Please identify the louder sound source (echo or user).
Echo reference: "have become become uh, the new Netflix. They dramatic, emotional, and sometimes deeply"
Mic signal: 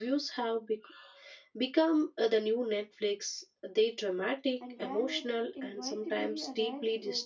echo